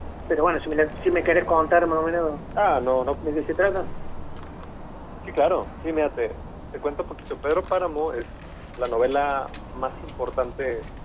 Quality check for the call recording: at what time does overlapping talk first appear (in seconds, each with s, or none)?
none